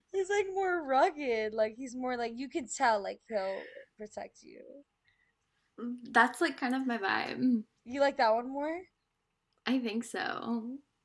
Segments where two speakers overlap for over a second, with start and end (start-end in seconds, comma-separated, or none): none